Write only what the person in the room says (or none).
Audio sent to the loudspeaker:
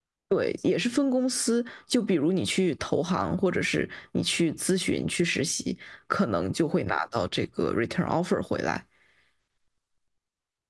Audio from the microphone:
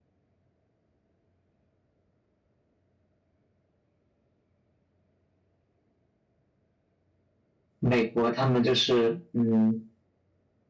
美国他们就是，嗯，